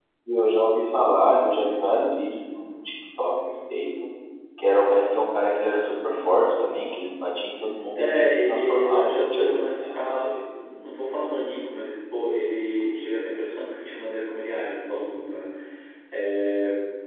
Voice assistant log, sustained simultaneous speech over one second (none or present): present